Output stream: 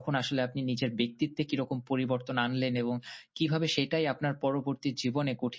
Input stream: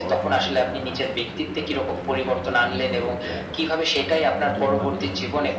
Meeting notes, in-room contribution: present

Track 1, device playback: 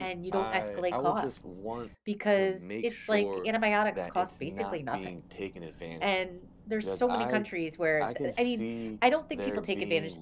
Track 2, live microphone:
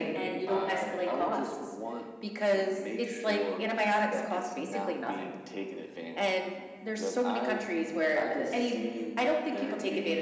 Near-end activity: none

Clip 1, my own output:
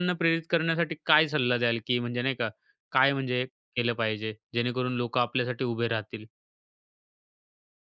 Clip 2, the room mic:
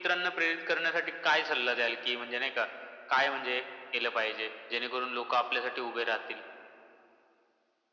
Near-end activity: none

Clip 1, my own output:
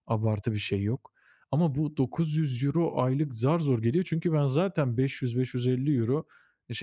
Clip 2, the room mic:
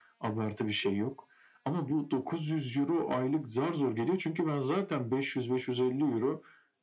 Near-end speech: none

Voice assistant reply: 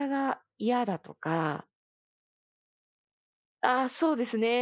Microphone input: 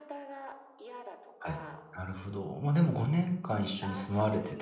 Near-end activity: present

